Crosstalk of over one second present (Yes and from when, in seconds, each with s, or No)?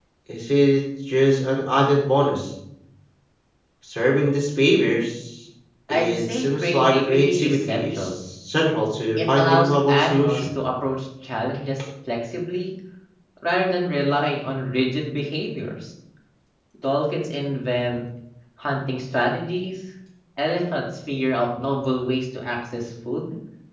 Yes, from 5.9 s